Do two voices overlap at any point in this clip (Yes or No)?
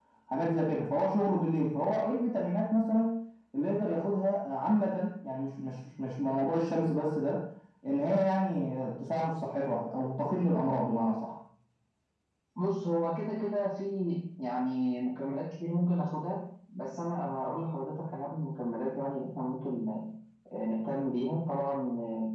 No